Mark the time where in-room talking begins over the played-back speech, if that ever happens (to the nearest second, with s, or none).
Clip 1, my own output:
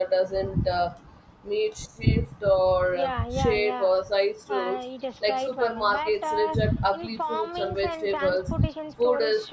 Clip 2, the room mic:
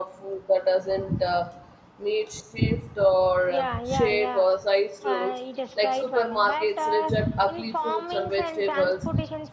none